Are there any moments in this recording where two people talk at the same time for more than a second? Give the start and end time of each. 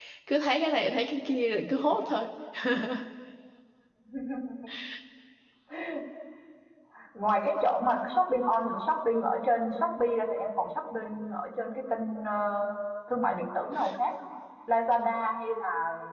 none

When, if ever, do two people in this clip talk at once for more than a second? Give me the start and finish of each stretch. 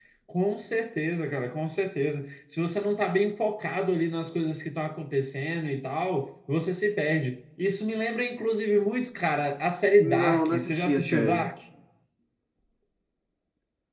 10.0-11.5

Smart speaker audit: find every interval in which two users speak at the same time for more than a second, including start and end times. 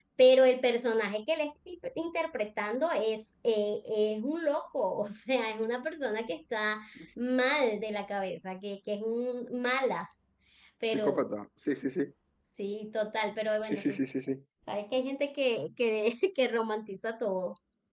none

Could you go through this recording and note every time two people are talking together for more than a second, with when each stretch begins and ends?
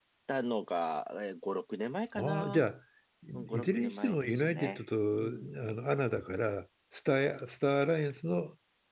3.3-4.8

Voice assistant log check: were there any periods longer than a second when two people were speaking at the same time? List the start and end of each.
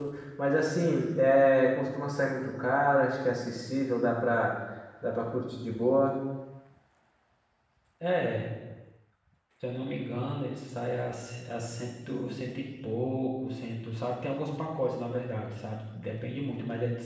none

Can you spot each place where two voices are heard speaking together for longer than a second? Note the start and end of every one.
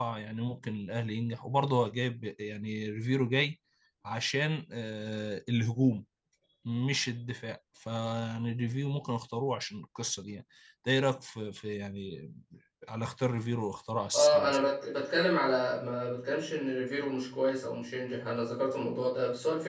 none

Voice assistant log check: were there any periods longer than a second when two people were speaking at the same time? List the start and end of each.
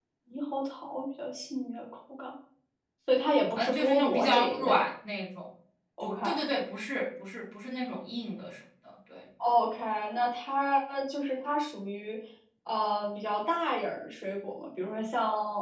3.6-4.8

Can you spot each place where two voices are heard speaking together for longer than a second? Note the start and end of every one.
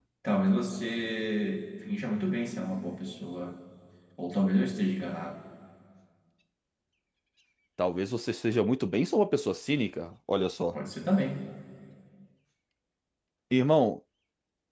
none

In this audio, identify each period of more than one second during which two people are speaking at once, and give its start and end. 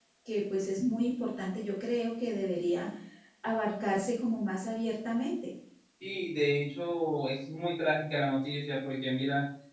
none

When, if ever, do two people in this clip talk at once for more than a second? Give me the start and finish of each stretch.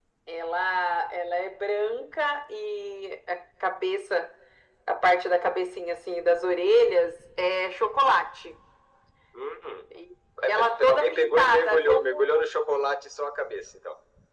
10.4-12.4

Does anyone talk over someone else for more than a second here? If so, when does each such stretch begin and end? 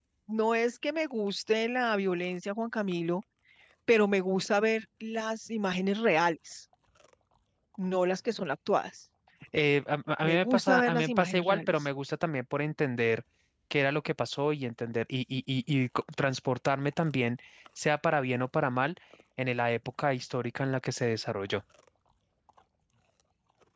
10.2-11.8

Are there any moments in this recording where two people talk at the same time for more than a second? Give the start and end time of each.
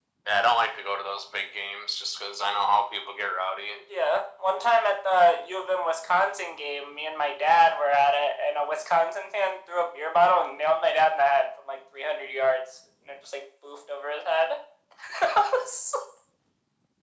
none

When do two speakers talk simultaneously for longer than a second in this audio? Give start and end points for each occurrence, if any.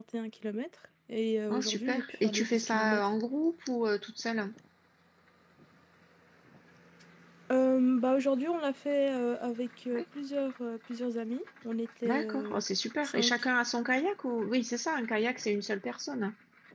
1.5-3.1

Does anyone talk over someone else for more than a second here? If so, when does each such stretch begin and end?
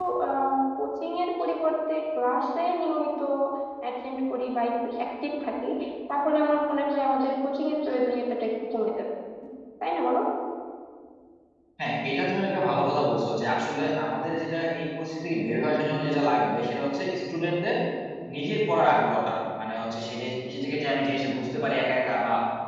none

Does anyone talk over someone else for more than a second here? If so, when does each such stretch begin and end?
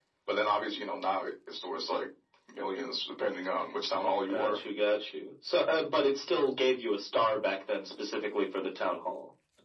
none

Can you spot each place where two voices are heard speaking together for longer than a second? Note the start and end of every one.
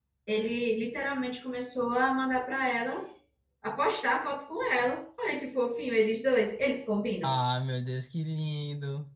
none

